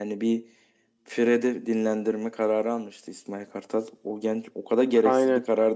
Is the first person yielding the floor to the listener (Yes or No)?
No